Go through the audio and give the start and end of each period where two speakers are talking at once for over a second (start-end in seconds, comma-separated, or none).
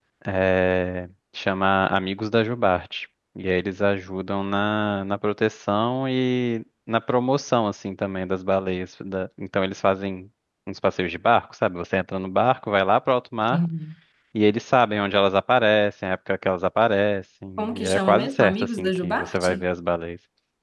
17.6-19.6